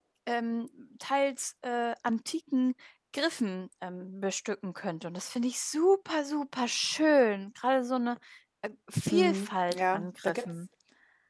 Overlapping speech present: Yes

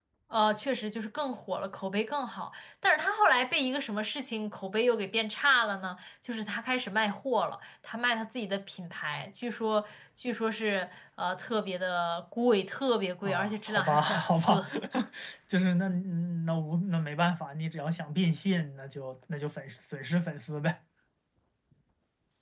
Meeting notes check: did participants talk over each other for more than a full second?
Yes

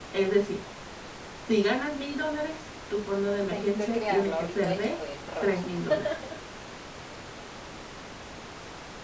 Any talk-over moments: Yes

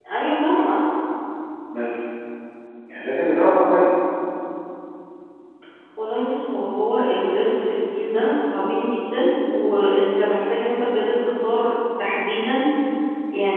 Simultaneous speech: No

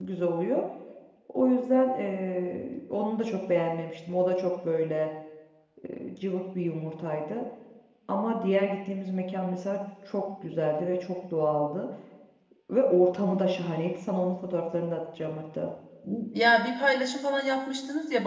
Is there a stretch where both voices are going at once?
No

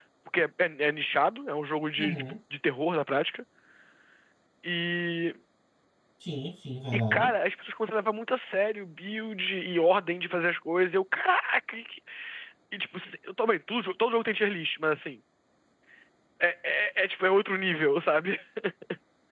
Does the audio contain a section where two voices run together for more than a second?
No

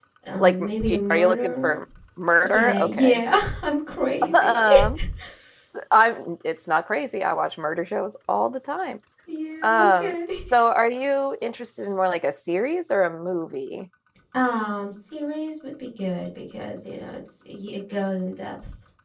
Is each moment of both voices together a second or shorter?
No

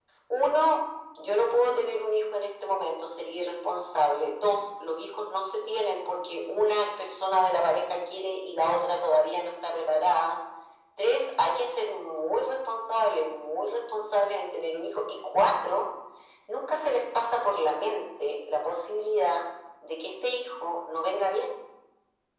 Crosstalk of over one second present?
No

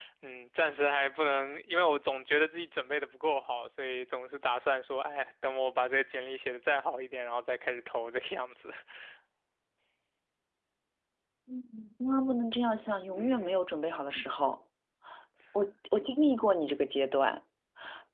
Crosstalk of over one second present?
No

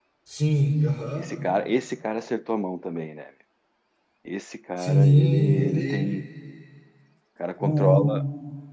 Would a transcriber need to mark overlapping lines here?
Yes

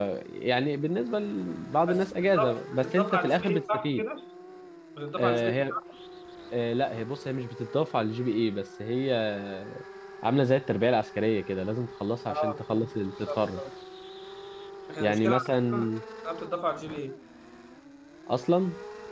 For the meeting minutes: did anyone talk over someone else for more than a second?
Yes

